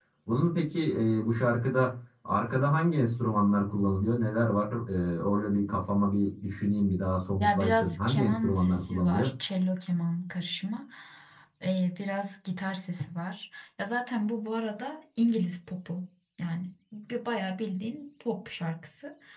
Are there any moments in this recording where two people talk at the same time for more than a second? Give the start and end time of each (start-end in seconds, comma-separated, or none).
7.4-9.3